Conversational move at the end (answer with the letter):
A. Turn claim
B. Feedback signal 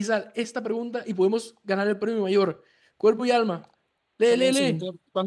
A